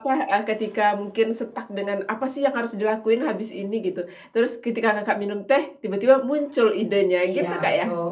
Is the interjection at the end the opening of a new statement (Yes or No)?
Yes